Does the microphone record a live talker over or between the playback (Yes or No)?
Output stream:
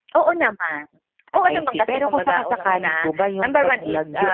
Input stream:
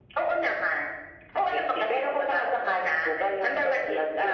No